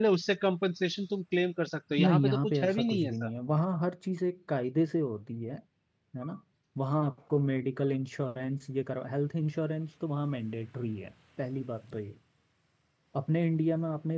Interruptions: present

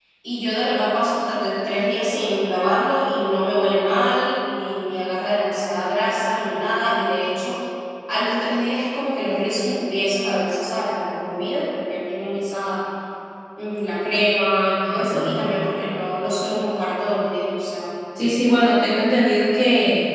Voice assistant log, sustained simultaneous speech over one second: none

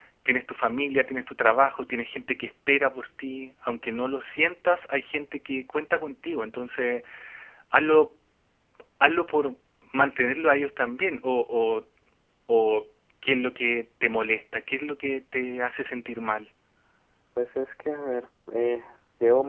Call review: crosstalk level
none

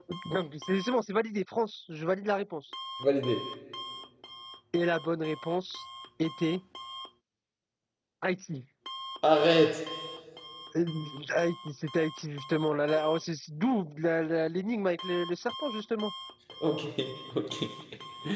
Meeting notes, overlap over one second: none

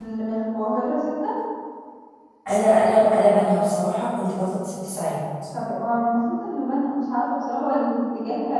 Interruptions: none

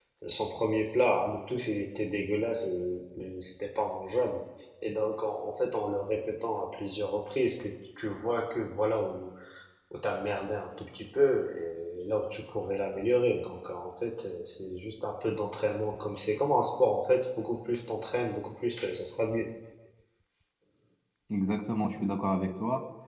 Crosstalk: none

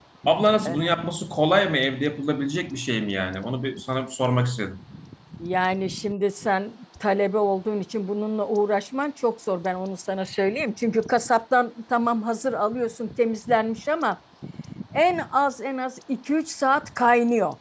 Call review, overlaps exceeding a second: none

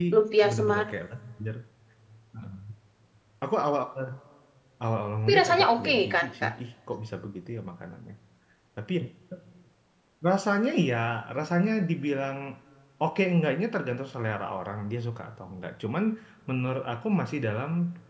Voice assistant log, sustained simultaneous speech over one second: present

